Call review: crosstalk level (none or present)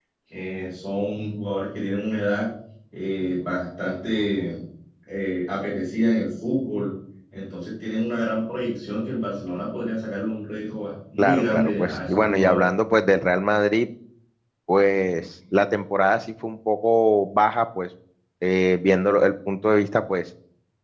present